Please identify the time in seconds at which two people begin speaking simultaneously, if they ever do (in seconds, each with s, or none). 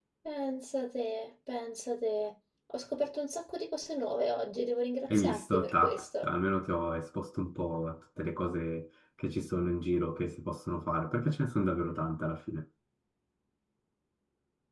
5.1 s